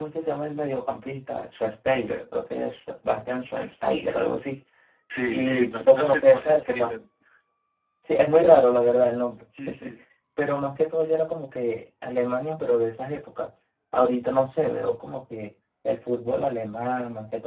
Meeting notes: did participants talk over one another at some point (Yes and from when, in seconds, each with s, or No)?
Yes, from 5.3 s